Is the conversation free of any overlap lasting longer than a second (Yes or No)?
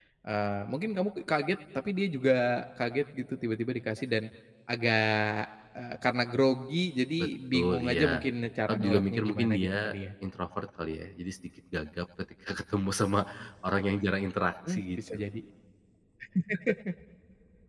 No